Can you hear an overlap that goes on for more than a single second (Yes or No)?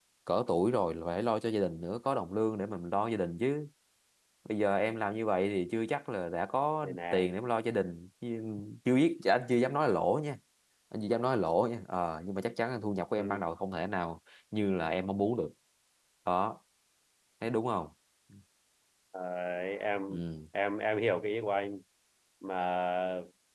No